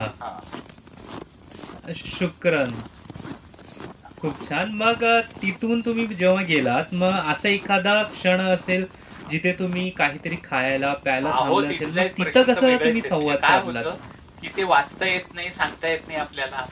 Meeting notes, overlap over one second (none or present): present